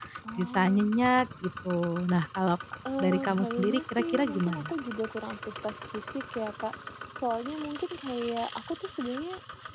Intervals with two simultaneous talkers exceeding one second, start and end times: 3.0-4.7

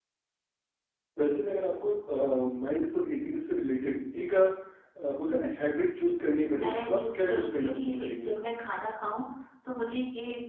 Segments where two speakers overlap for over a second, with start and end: 6.6-8.3

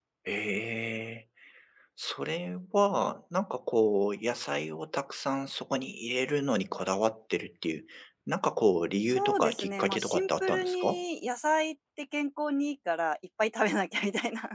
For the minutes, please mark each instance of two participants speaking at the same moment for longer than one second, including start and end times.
9.1-11.0

